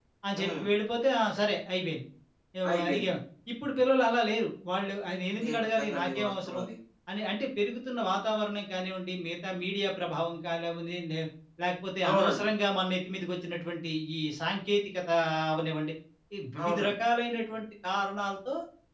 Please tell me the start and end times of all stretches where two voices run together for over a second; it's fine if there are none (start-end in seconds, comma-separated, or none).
5.3-6.6